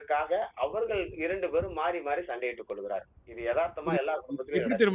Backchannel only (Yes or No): No